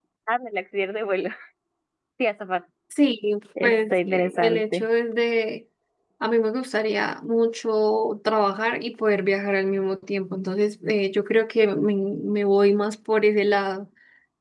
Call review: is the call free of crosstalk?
No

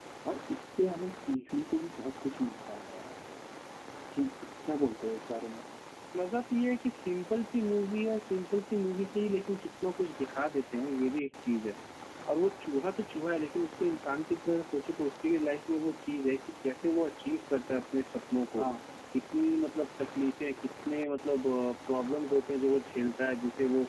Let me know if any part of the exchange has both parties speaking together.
No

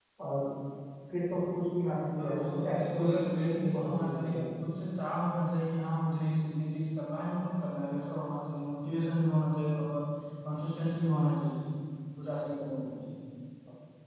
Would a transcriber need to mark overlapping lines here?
Yes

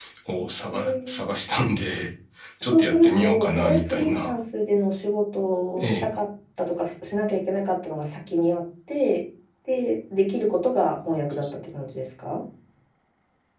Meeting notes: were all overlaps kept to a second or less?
No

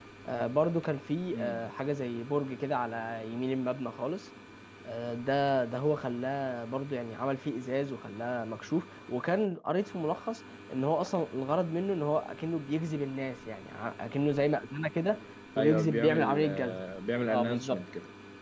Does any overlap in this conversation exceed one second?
Yes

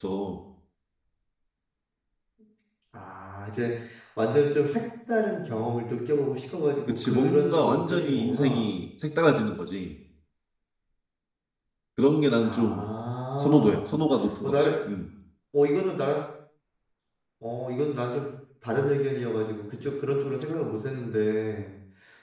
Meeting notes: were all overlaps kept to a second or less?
No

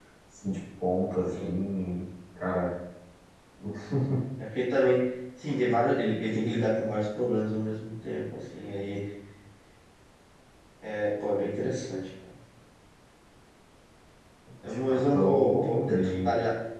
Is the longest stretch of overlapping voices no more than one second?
No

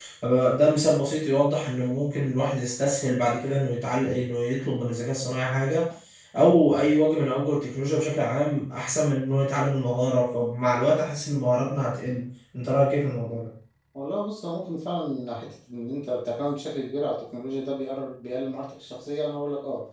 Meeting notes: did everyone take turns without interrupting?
Yes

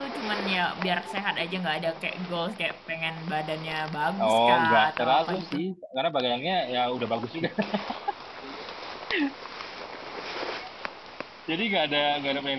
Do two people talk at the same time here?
Yes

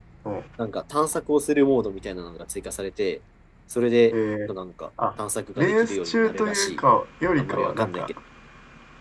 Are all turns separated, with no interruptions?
No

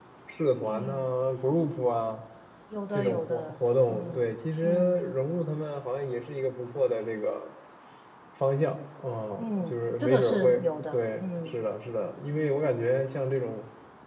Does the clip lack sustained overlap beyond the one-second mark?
No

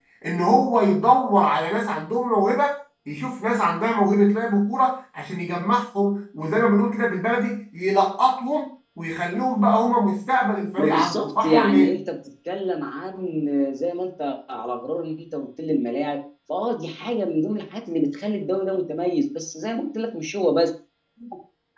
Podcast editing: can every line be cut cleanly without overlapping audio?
No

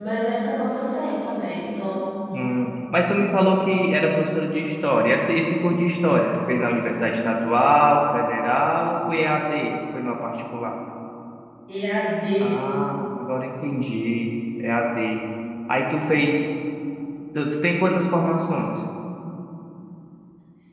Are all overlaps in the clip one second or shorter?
Yes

